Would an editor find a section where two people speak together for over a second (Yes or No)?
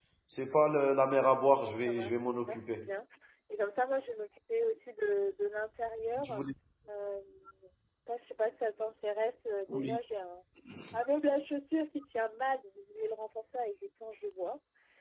Yes